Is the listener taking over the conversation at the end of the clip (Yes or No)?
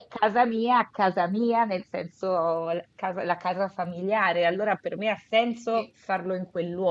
No